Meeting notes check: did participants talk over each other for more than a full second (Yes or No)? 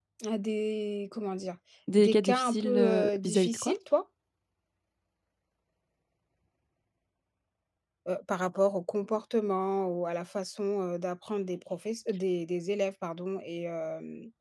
Yes